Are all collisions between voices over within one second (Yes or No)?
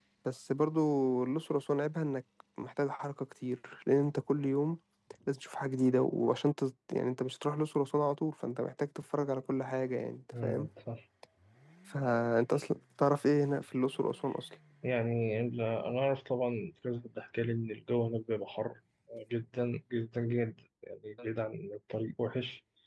Yes